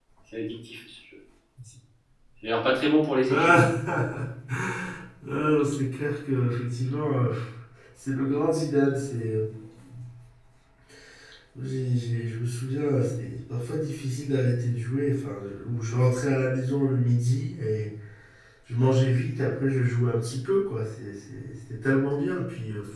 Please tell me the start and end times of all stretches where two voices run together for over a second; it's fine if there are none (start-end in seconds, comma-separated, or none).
none